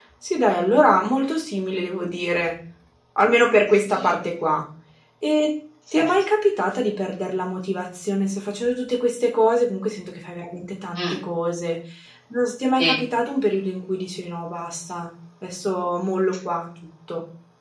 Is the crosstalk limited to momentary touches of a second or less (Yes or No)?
Yes